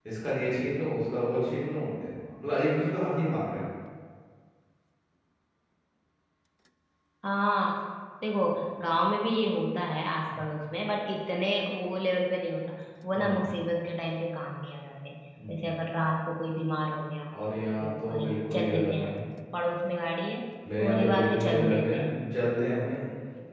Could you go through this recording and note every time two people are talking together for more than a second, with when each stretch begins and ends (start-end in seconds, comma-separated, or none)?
17.8-19.1, 20.8-22.1